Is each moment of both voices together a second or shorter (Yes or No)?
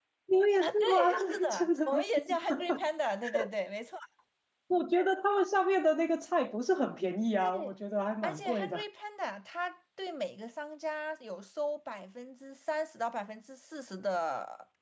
No